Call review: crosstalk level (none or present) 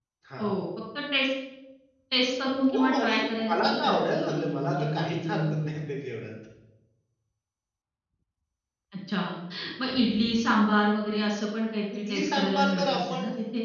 present